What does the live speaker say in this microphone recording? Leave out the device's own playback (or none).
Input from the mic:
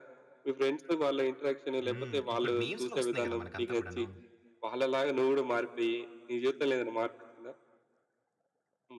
హ్మ్. ఇప్పుడు మీమ్స్‌లో ఒస్తున్నాయి గదా! మనకంతా కూడాను.